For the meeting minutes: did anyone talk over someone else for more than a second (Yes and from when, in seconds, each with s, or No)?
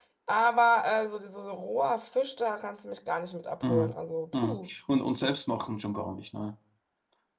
No